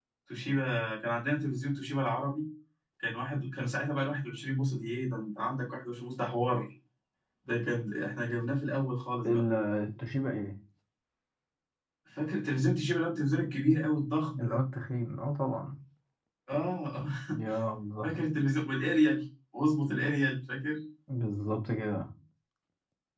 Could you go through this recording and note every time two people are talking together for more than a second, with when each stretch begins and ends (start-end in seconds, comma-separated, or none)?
none